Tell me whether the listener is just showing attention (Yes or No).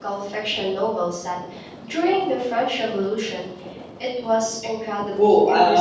No